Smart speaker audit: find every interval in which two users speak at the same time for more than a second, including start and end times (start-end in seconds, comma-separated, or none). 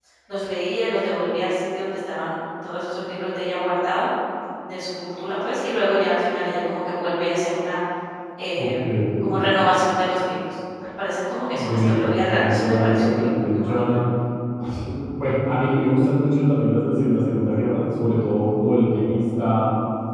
11.5-13.8